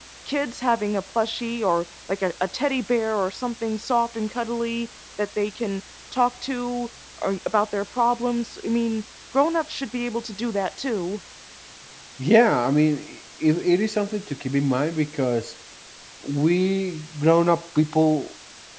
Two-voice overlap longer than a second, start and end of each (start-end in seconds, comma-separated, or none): none